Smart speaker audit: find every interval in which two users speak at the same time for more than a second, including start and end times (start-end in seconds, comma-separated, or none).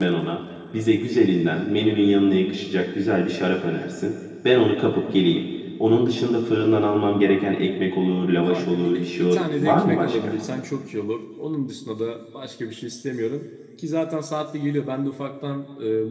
8.5-10.3